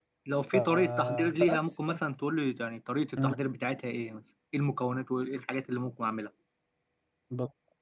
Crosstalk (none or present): present